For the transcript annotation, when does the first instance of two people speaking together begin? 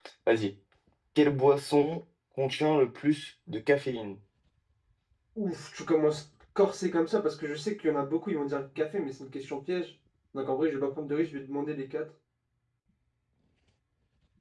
none

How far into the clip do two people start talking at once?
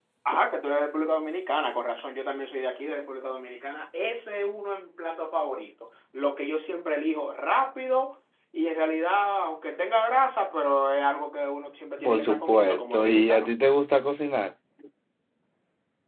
12.0 s

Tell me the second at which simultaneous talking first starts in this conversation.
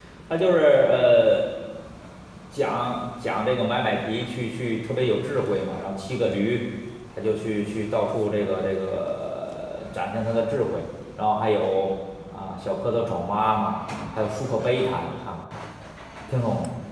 none

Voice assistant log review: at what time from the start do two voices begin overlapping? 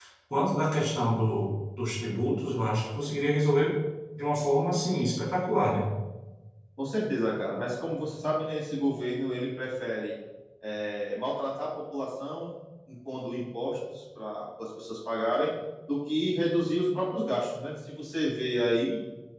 none

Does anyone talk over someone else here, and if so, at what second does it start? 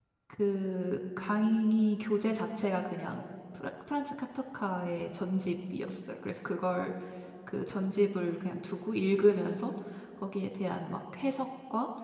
none

